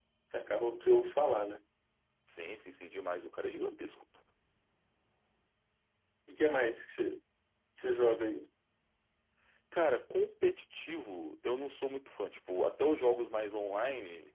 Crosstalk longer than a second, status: none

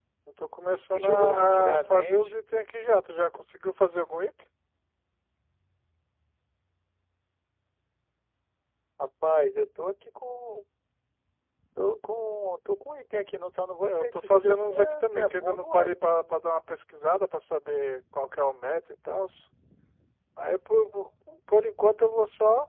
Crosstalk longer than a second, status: present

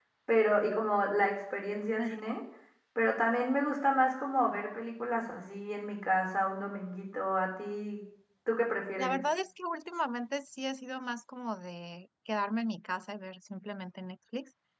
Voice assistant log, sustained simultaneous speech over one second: none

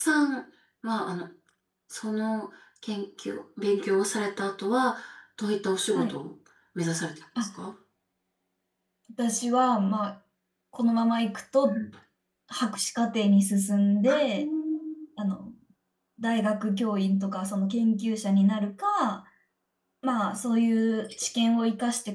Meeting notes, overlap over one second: none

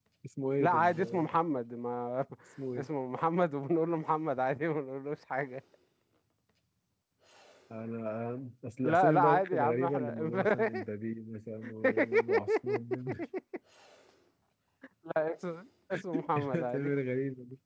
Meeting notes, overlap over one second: present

